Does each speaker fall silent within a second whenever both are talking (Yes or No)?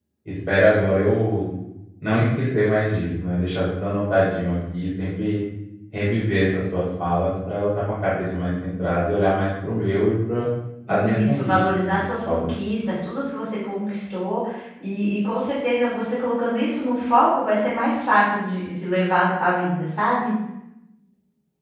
No